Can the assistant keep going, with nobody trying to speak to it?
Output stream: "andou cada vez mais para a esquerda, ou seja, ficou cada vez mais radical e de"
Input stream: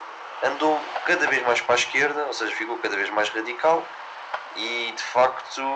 Yes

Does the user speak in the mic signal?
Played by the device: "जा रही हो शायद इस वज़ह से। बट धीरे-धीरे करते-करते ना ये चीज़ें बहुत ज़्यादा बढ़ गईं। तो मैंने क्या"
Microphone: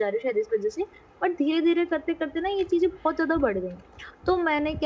No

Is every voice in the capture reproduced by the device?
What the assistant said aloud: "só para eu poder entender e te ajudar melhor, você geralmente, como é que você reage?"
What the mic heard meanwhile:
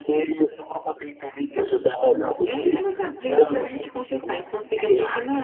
No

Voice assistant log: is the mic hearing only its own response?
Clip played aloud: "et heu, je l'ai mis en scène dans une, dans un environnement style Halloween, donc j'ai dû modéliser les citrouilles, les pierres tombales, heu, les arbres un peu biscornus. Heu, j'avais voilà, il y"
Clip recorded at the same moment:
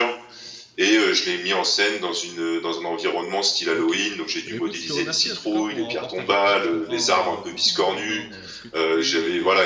No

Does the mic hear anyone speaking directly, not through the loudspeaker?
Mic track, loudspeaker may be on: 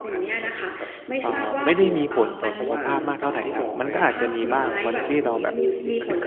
Yes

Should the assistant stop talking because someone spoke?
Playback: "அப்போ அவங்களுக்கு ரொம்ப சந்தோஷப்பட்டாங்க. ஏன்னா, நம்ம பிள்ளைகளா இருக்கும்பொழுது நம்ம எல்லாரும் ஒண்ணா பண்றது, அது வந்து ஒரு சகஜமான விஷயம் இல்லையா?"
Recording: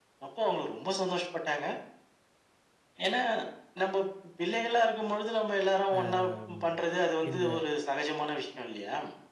Yes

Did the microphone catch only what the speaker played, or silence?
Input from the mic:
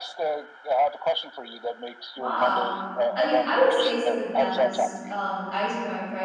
No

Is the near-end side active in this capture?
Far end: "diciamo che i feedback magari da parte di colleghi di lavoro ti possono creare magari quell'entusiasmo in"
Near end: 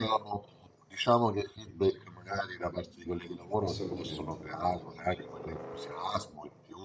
Yes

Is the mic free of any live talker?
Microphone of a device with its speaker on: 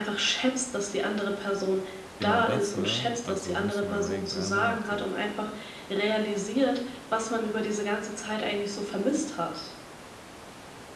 No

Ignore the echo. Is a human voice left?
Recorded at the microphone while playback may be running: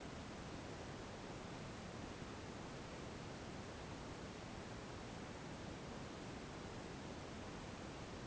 No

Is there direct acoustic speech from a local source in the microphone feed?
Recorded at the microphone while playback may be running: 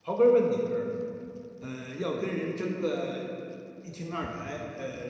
Yes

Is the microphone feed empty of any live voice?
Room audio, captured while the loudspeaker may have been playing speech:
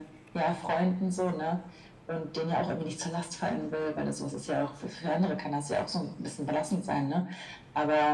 Yes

